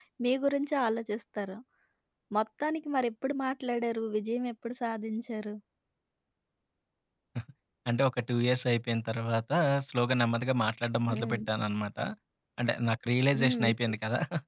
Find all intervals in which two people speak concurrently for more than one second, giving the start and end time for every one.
none

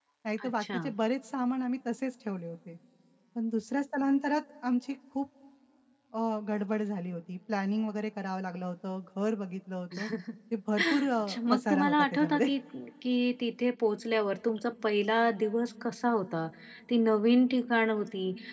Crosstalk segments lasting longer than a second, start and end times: 11.0-12.5

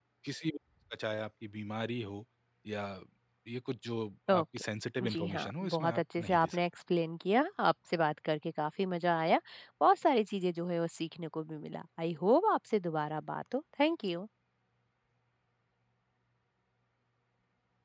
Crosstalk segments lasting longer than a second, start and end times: 5.0-6.6

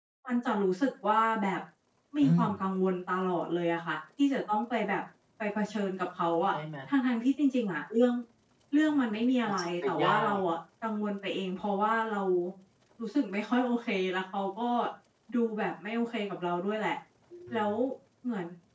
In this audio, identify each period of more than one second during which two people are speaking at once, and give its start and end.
9.1-10.4

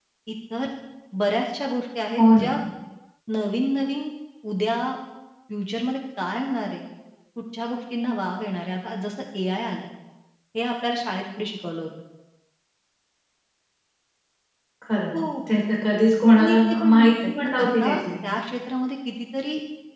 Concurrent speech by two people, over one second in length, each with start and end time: 16.3-18.0

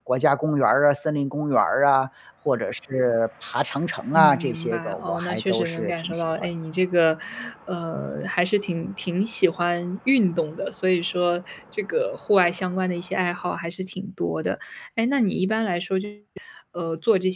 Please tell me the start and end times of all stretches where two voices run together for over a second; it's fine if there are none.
4.1-6.5

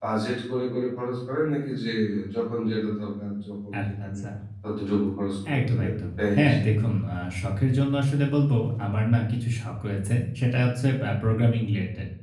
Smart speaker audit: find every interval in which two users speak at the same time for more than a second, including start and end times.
5.6-6.8

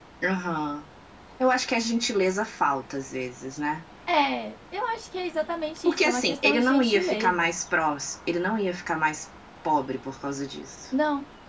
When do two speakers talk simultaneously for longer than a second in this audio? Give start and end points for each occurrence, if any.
5.8-7.5

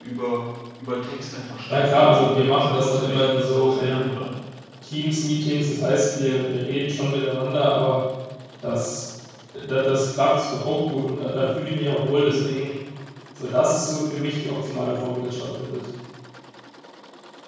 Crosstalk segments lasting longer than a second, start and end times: 1.7-4.1

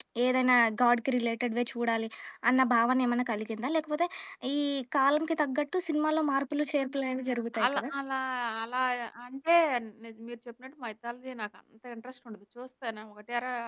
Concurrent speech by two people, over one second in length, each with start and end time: none

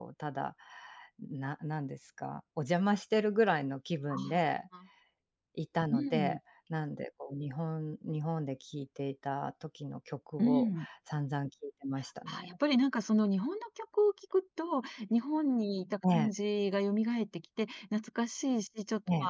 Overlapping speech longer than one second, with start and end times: none

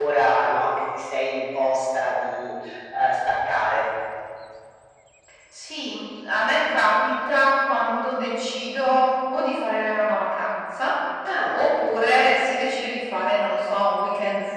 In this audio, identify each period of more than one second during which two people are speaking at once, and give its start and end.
none

